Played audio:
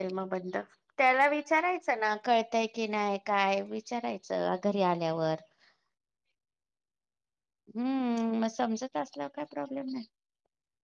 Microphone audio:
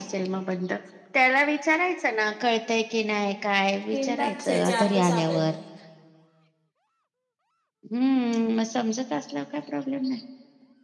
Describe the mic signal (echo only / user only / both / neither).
both